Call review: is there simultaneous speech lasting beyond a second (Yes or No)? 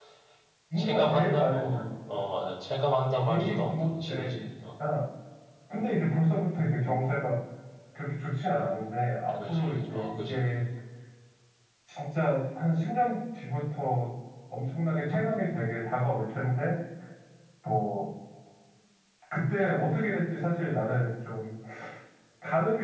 Yes